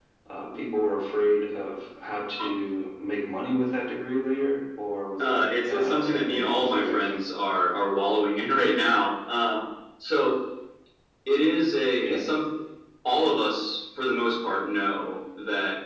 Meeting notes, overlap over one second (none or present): present